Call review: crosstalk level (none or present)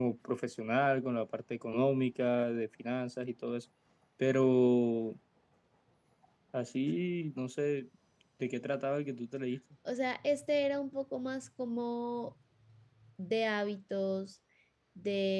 none